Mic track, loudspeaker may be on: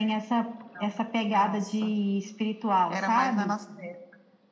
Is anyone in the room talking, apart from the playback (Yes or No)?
No